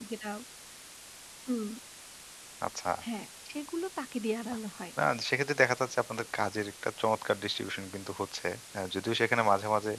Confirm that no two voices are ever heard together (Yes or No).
Yes